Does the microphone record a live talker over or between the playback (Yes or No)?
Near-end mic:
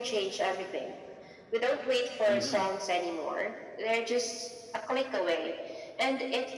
Yes